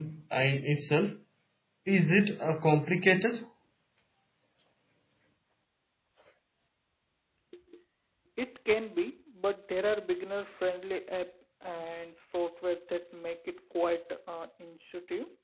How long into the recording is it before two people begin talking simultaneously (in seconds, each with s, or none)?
none